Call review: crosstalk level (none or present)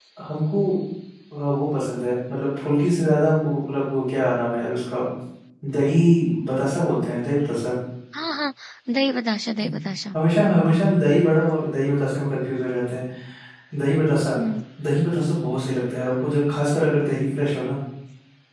none